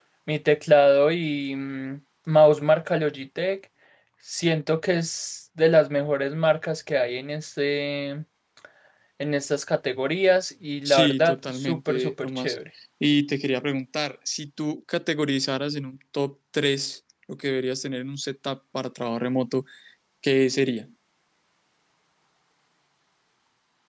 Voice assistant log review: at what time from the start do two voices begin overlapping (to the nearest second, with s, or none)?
11 s